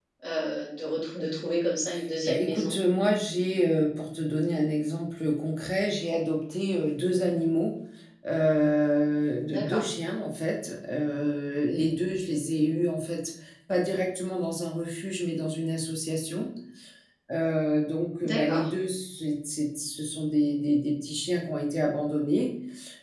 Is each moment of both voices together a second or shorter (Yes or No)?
Yes